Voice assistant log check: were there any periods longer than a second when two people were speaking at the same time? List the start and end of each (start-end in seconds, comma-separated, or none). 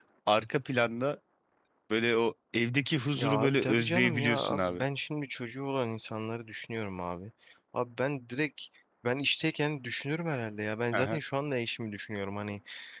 3.2-4.8